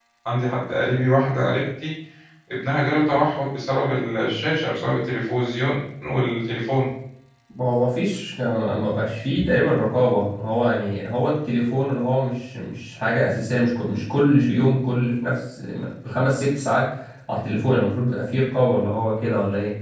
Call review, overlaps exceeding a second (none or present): none